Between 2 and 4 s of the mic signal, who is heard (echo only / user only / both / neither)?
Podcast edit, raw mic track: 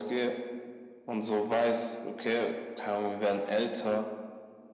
echo only